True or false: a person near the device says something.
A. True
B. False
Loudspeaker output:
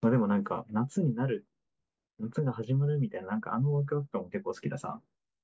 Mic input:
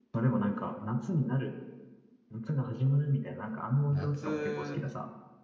A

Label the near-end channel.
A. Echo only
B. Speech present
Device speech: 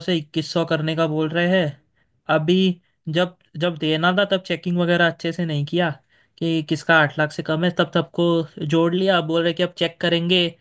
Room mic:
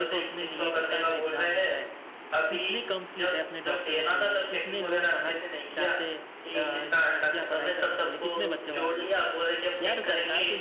B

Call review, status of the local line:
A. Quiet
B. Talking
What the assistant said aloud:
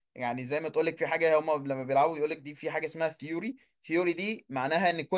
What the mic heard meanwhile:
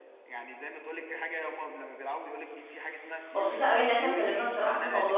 B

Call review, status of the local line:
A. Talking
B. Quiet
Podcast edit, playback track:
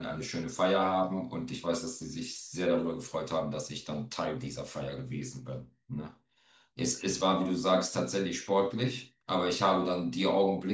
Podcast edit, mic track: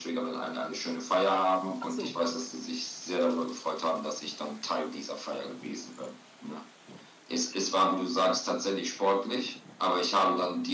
A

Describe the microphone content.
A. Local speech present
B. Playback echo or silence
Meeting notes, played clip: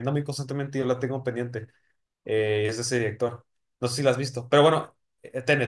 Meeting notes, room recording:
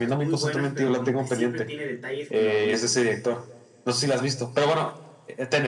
A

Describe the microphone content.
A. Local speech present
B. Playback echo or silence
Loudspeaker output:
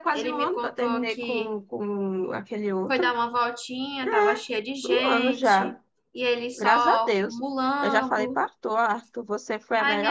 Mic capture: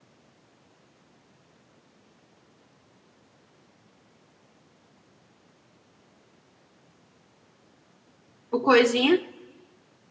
A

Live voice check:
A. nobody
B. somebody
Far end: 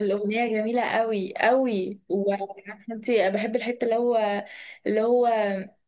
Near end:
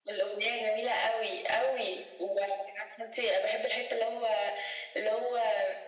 A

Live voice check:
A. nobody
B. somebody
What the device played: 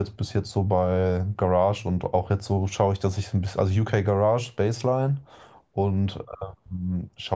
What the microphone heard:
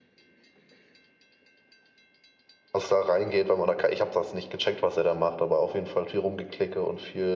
B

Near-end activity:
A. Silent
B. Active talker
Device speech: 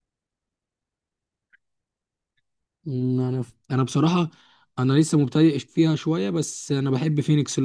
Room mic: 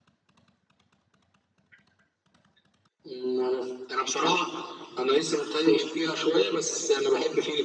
A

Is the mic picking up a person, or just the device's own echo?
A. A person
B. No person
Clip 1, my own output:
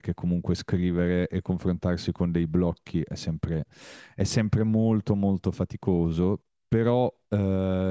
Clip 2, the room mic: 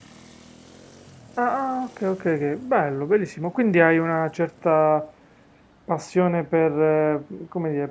A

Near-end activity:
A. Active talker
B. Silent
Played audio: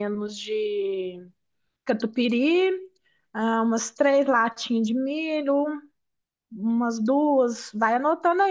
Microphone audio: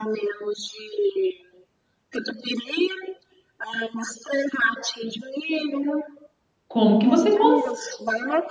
A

